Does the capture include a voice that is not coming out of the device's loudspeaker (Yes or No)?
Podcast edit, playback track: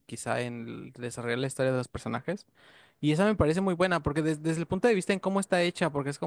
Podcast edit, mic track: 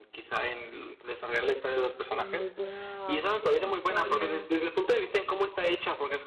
Yes